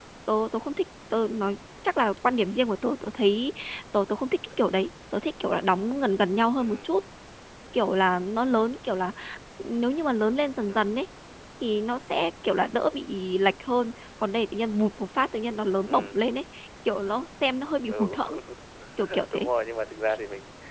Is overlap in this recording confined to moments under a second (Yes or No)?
Yes